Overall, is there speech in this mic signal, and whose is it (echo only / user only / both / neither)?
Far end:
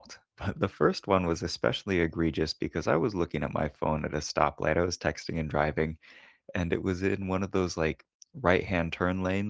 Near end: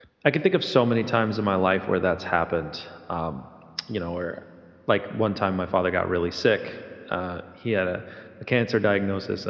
user only